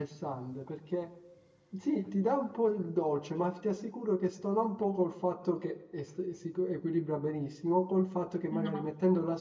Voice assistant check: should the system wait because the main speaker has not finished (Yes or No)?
Yes